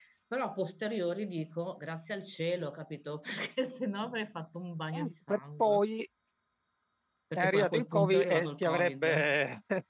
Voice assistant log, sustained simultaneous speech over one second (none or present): present